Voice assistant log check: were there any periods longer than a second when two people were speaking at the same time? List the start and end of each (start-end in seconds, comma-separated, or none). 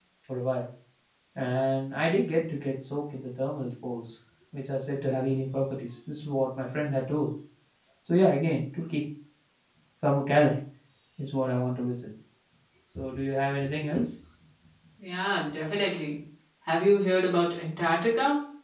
none